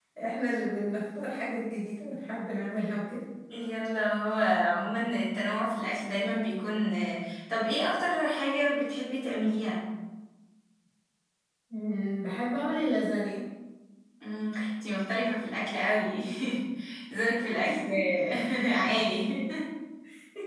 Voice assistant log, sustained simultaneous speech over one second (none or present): none